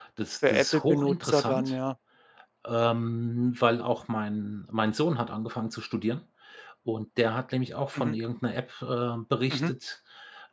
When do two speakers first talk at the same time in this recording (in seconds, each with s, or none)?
0.5 s